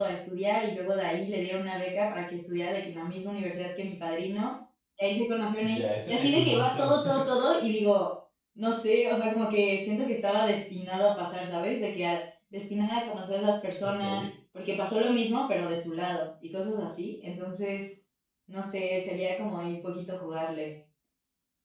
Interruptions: present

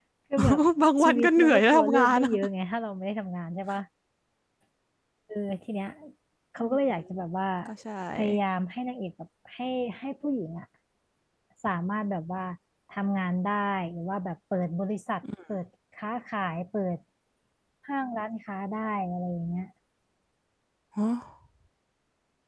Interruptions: present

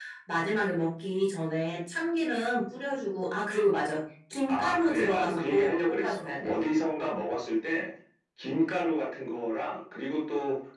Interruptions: present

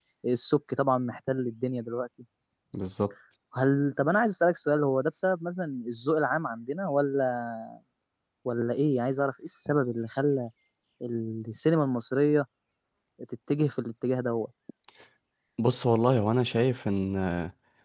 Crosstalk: none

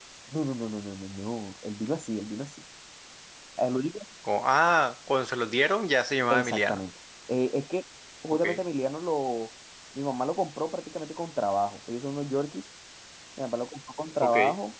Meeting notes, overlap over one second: none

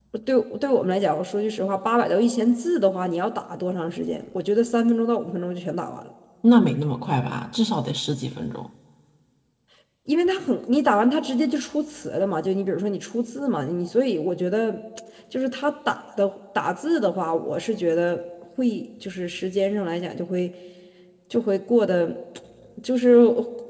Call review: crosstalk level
none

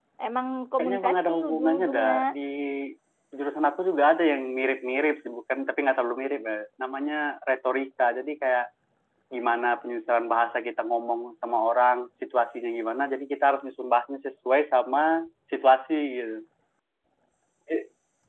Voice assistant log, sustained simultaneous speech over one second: present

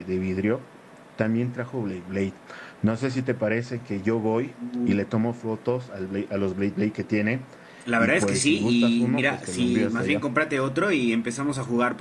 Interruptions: present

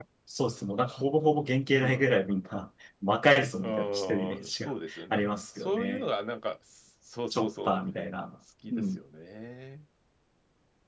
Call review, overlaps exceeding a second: present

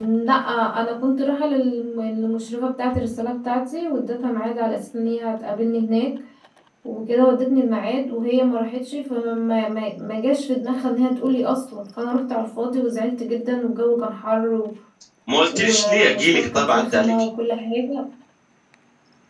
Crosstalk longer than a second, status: present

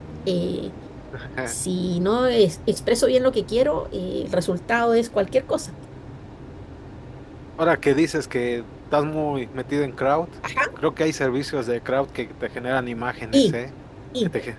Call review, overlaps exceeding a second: none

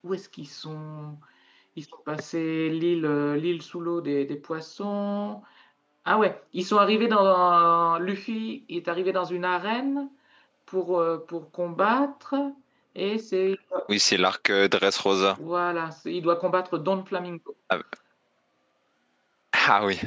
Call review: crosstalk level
none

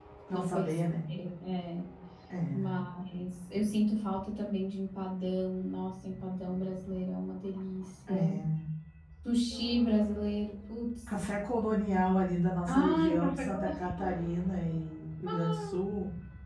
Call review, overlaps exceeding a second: present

